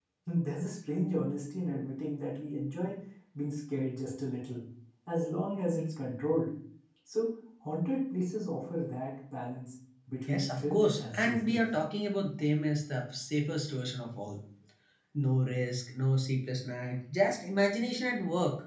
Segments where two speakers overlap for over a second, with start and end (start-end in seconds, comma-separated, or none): 10.3-11.6